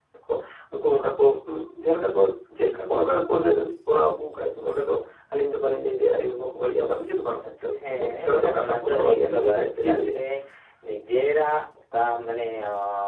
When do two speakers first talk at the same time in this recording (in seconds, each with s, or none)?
7.8 s